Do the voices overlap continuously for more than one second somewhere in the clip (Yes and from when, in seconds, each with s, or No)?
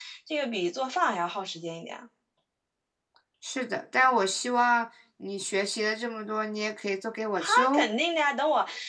No